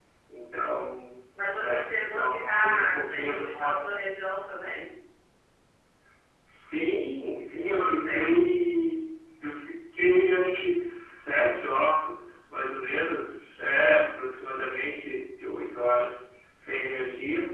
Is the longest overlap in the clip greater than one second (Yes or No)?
Yes